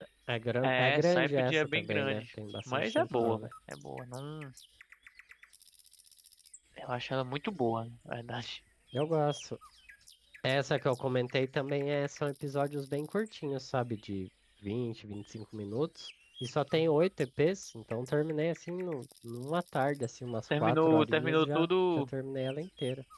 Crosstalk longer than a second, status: present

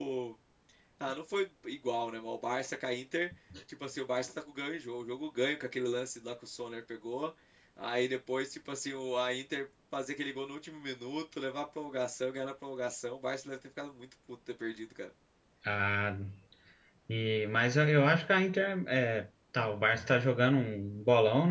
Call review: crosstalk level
none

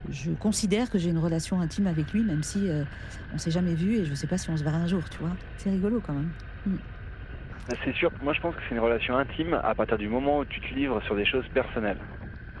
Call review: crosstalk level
none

